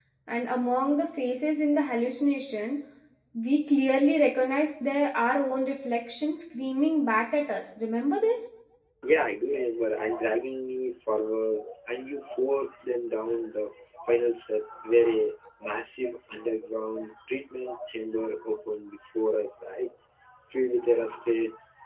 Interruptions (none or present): none